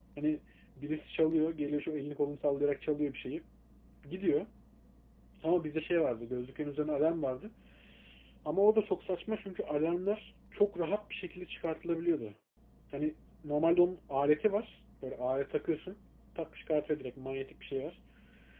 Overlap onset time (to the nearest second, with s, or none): none